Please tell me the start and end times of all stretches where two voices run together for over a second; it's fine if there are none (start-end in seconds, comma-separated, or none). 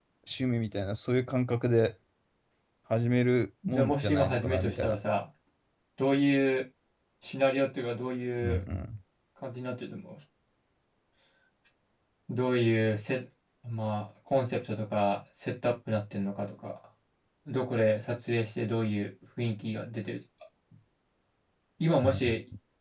3.7-5.0